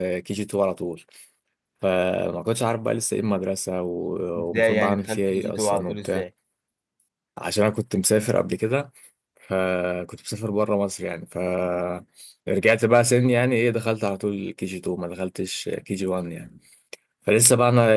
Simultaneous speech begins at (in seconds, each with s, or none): 4.3 s